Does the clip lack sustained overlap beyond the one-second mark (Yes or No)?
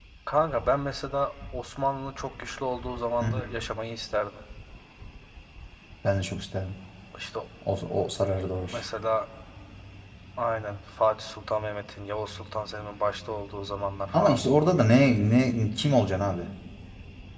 Yes